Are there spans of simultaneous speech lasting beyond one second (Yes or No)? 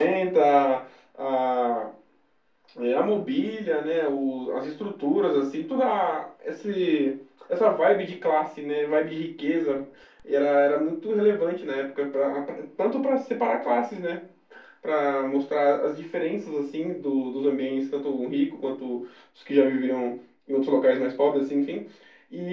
No